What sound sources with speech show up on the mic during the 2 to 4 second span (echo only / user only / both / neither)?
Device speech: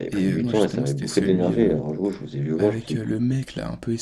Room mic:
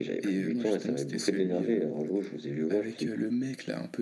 echo only